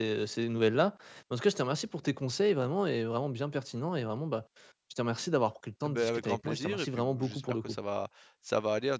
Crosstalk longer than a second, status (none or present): present